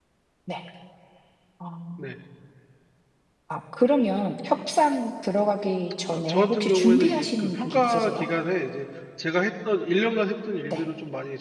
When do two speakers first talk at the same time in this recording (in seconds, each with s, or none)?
6.1 s